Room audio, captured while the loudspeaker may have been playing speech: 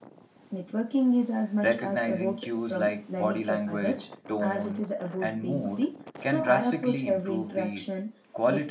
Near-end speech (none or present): present